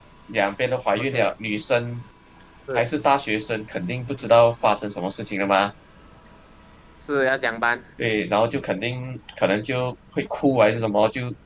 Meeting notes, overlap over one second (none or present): none